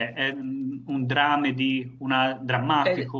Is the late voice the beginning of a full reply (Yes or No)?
Yes